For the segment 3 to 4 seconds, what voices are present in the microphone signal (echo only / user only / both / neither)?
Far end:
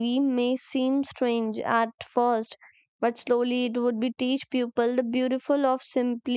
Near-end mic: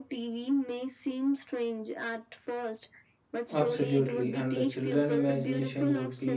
both